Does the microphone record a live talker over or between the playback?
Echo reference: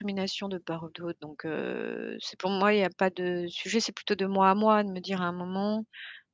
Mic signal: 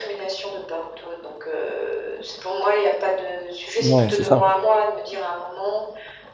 Yes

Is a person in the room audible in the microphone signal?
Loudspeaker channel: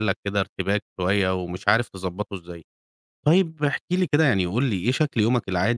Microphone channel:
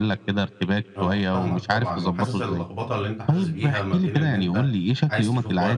Yes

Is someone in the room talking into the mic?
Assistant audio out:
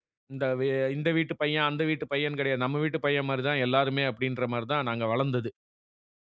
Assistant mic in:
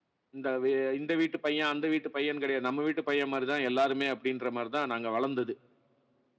No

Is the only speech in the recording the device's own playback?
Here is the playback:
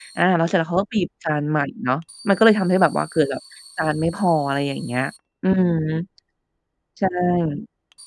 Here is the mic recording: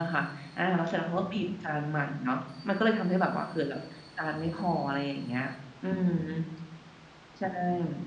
Yes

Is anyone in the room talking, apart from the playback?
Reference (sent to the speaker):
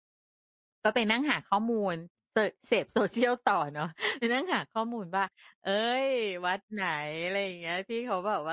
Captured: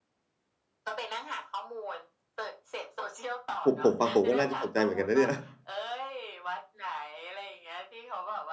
Yes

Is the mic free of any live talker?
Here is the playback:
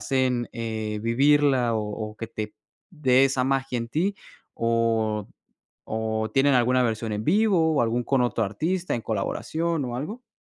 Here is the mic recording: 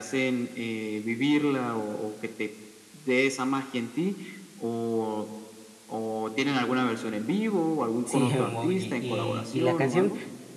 No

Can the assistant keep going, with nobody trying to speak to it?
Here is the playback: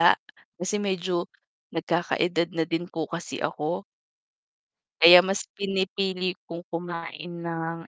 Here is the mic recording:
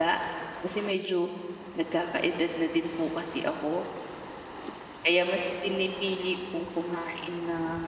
Yes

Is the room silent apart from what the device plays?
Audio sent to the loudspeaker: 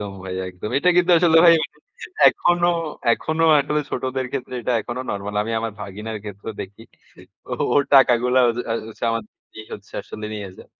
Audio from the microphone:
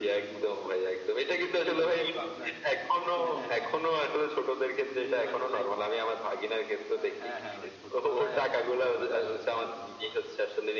No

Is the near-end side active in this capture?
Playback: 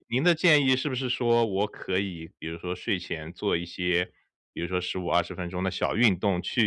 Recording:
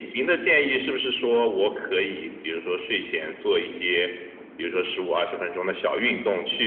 No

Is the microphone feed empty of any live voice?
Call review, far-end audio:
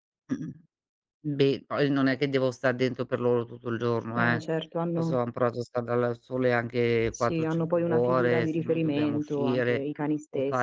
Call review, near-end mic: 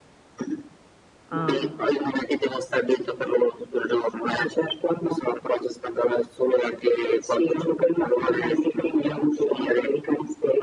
No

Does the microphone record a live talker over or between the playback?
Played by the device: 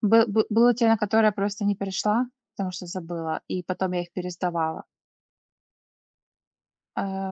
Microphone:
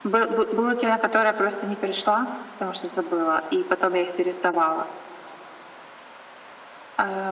No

